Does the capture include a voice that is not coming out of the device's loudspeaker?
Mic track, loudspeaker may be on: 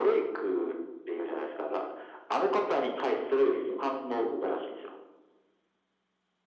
No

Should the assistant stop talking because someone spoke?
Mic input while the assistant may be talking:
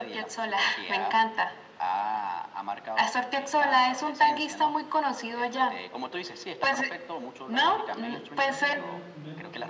Yes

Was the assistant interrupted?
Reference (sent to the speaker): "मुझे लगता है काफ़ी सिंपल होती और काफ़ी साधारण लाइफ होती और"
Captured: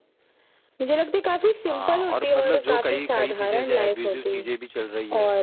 Yes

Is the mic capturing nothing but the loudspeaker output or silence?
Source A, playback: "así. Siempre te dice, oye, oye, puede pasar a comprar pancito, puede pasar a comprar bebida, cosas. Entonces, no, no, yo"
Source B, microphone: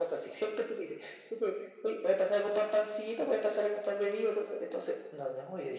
Yes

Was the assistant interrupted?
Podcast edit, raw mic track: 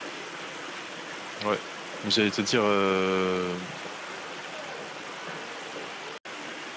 Yes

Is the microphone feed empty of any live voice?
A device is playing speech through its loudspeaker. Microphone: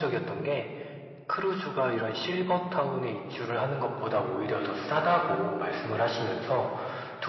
Yes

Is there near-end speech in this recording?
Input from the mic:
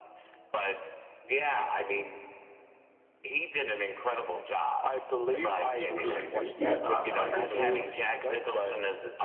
Yes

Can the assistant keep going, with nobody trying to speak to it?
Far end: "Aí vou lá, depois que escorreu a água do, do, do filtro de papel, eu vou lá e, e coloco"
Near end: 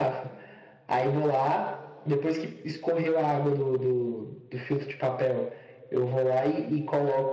Yes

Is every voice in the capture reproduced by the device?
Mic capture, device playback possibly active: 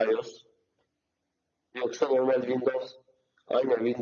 Yes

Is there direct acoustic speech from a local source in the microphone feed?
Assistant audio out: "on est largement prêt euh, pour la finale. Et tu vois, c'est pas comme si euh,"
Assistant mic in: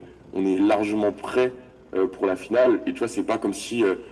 No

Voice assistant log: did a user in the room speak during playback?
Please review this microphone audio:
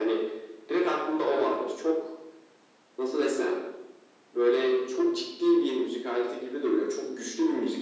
No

